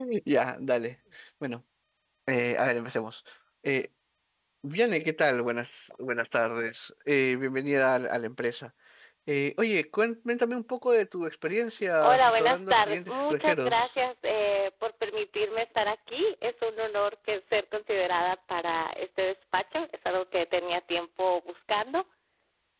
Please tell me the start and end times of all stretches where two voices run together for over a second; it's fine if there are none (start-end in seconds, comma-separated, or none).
12.0-13.9